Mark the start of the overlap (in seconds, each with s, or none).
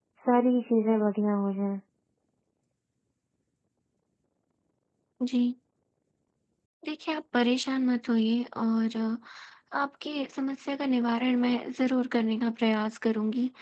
none